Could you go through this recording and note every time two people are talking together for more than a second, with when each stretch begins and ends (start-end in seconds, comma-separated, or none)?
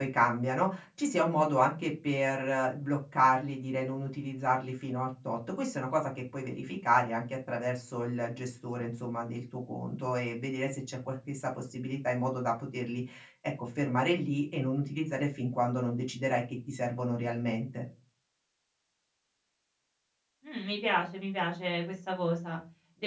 none